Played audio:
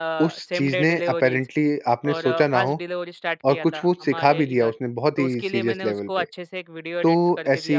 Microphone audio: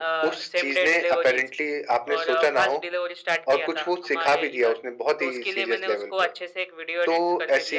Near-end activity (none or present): none